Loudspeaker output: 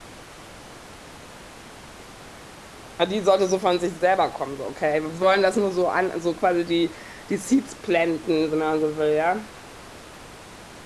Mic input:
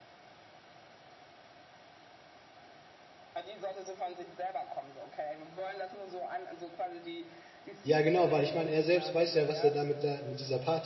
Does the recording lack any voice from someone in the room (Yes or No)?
No